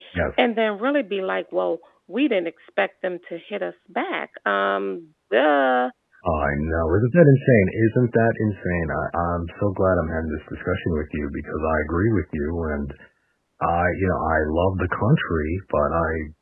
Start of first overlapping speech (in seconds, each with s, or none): none